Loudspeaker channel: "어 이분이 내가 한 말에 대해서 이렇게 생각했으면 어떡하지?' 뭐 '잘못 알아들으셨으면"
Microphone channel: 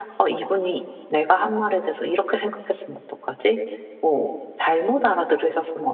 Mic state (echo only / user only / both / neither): echo only